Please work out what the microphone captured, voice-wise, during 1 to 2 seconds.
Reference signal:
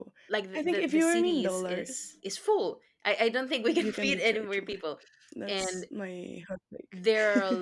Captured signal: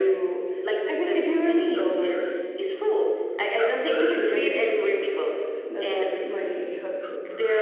echo only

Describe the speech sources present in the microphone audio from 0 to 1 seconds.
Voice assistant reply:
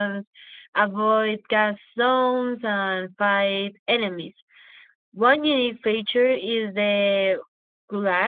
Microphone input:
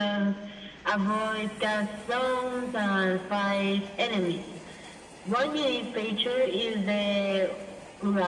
echo only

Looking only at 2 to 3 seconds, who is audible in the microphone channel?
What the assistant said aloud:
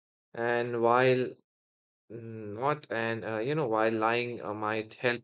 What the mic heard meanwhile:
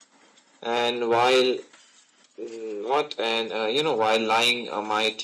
echo only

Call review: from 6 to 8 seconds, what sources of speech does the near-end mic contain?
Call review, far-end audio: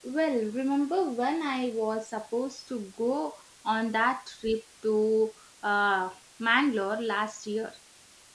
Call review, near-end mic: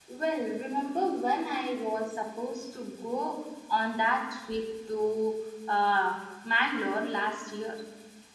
echo only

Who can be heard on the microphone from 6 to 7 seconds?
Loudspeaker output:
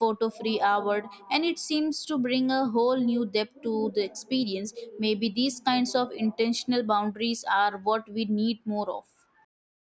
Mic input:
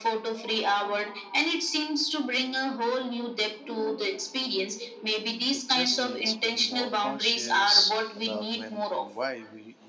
both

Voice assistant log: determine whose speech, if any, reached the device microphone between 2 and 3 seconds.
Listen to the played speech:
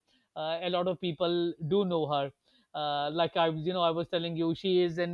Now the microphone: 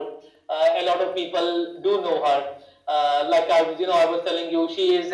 echo only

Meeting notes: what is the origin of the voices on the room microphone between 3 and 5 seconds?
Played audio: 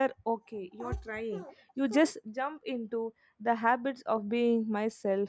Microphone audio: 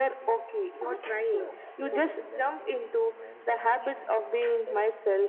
both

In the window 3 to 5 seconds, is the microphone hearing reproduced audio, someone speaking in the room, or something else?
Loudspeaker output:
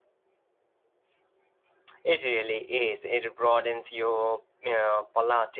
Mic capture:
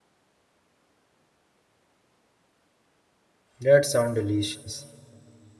user only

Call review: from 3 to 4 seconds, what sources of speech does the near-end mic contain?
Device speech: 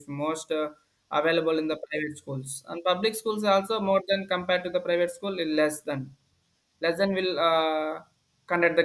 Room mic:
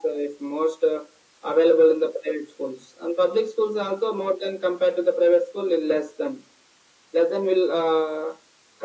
echo only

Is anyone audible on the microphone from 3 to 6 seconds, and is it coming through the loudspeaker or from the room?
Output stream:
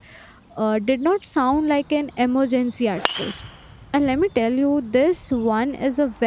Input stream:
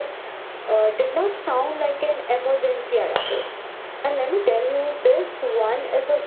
echo only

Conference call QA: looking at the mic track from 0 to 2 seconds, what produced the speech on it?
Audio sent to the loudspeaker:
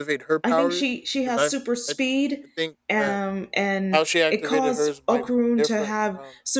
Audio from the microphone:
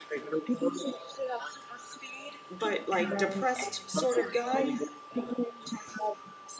echo only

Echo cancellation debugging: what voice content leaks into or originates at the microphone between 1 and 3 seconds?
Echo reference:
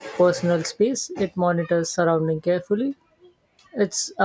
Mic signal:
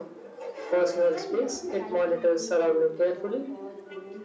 both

